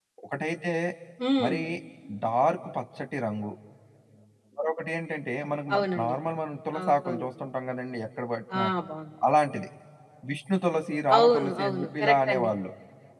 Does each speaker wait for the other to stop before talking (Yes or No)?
No